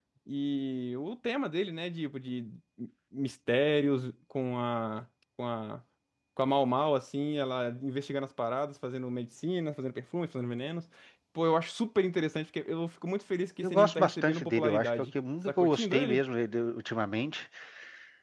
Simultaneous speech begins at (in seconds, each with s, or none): 13.6 s